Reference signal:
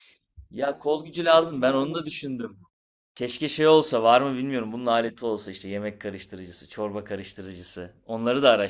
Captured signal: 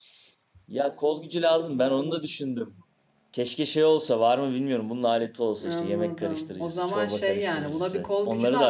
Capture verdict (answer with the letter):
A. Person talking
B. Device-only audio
A